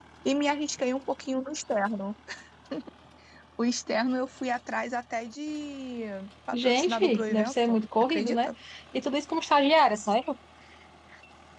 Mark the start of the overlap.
6.5 s

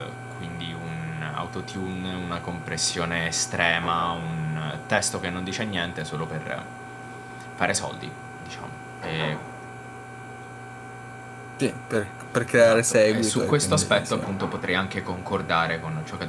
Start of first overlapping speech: 12.6 s

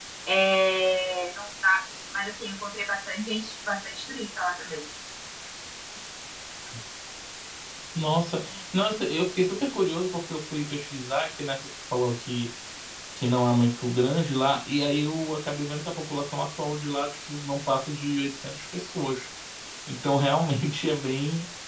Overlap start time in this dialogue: none

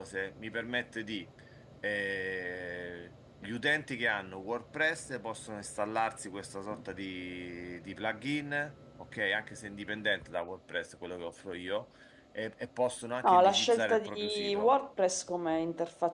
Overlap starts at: 13.2 s

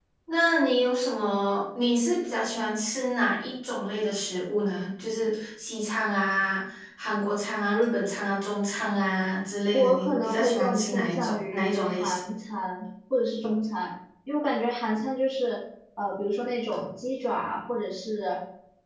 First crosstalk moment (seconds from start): 9.7 s

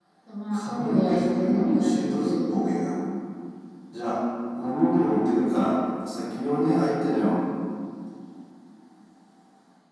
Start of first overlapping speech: 0.5 s

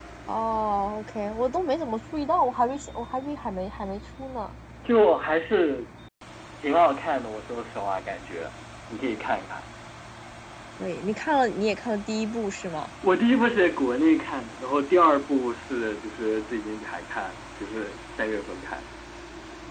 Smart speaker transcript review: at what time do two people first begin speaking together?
none

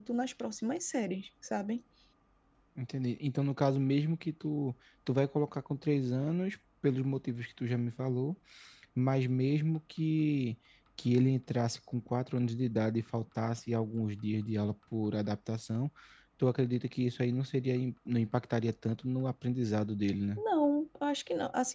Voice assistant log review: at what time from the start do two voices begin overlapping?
none

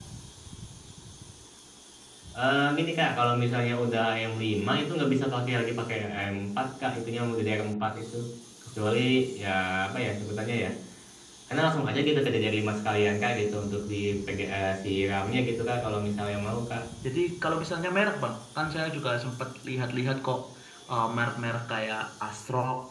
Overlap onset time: none

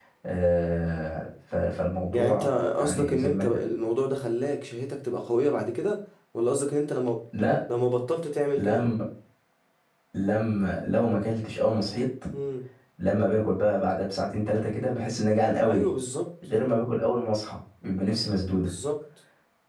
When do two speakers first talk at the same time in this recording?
2.1 s

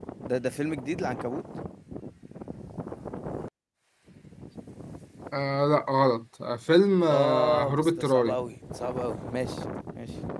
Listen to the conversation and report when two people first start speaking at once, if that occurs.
7.1 s

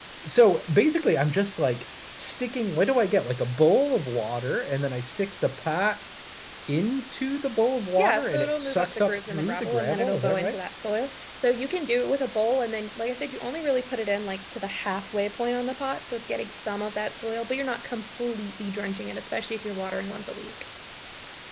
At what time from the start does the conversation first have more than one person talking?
8.0 s

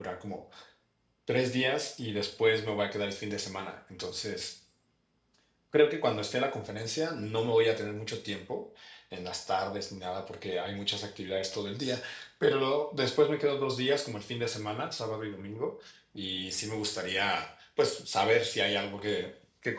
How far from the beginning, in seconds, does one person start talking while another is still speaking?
none

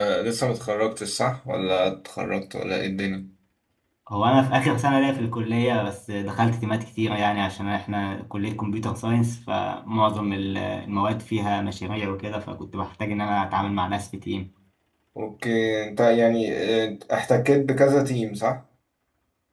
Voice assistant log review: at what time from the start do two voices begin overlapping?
none

